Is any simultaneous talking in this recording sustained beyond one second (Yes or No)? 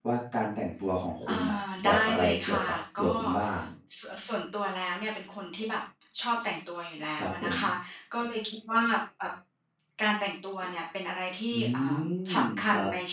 Yes